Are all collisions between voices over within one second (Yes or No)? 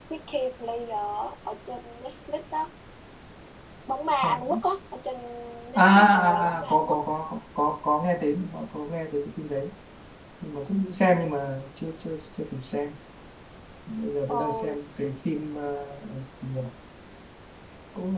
No